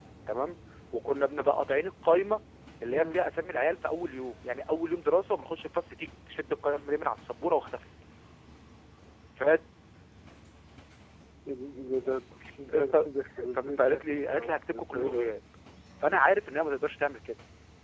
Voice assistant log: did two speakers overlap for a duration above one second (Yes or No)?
Yes